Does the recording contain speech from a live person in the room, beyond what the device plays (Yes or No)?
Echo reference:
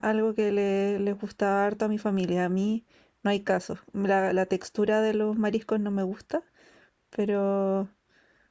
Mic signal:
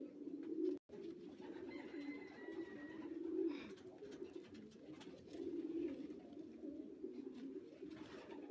No